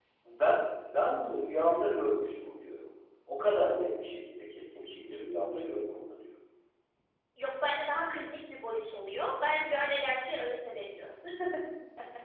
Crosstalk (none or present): none